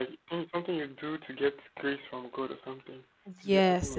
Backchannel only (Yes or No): No